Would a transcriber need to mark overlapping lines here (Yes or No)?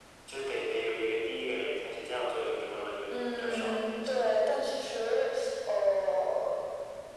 Yes